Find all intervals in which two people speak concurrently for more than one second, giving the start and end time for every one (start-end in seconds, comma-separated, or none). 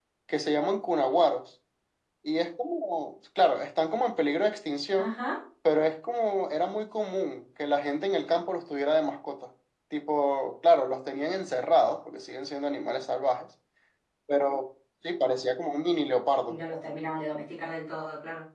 none